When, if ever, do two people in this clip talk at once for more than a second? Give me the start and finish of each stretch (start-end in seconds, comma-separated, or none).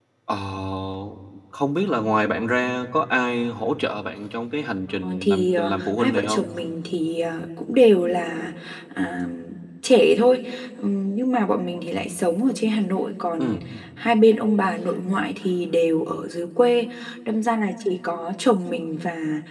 5.0-6.5